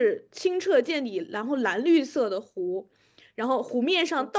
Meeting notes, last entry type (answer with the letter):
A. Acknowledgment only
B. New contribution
A